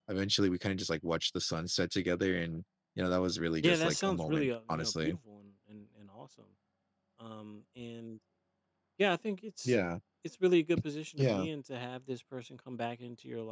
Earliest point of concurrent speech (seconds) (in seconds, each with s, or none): 3.6 s